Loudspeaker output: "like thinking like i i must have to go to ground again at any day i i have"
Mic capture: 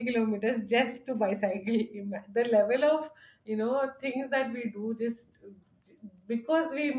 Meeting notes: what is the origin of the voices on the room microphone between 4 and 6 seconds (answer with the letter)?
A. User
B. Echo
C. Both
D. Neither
A